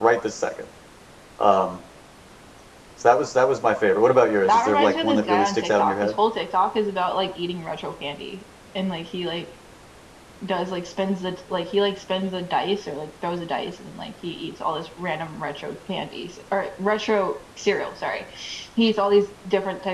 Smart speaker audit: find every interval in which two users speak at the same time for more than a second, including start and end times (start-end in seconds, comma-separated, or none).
4.5-6.1